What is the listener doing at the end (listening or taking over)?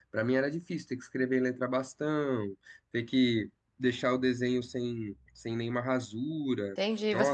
taking over